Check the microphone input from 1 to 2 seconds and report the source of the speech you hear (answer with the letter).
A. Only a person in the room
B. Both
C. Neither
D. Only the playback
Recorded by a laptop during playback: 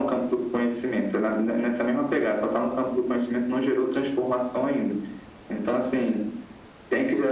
D